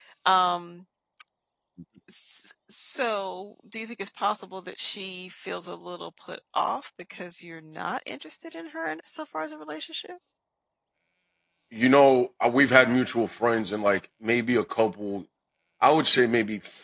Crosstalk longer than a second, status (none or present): none